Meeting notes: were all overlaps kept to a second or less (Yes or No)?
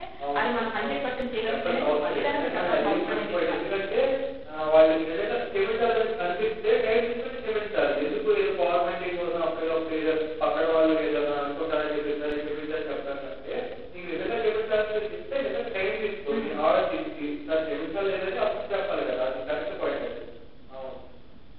No